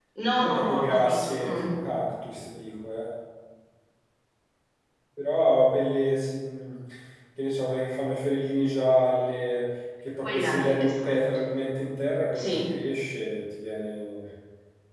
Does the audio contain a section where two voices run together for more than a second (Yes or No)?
Yes